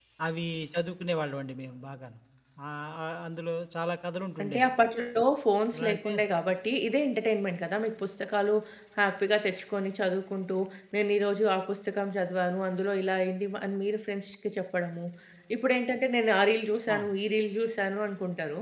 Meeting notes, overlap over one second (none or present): none